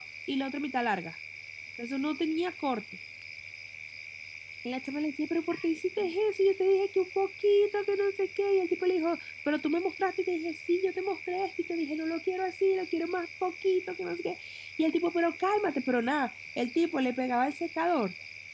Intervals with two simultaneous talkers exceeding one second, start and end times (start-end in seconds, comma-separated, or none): none